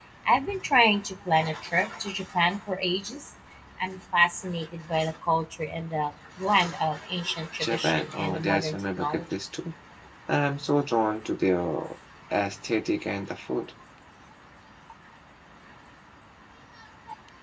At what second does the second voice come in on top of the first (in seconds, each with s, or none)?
7.6 s